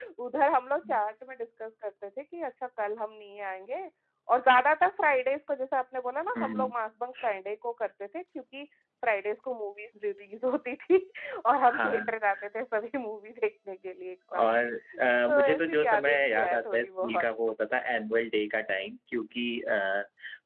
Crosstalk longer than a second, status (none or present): present